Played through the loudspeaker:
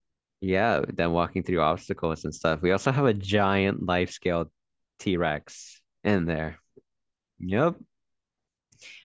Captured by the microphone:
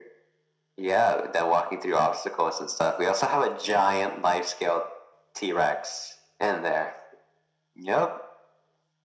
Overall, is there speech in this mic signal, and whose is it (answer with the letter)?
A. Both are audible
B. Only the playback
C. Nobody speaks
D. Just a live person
B